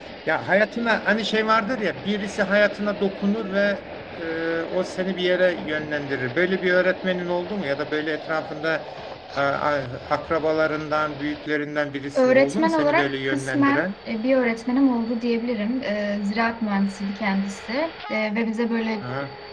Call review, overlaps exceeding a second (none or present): present